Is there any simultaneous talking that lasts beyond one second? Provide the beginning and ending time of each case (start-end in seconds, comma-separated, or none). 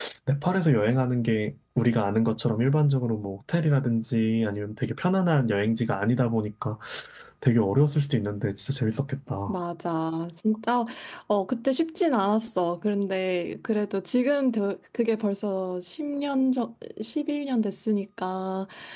none